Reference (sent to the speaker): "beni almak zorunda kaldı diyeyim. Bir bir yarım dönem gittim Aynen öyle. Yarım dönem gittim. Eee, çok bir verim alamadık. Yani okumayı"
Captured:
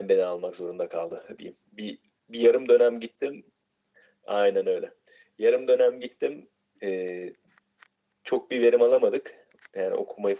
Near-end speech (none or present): none